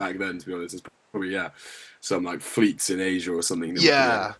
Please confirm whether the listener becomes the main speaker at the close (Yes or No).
Yes